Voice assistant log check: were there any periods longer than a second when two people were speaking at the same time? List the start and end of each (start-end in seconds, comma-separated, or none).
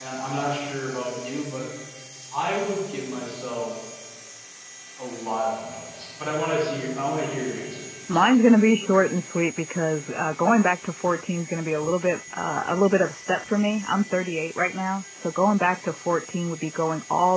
none